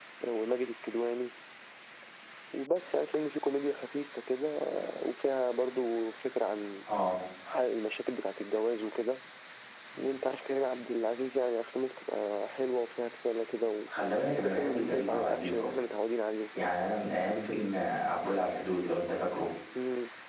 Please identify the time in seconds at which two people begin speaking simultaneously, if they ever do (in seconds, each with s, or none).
14.4 s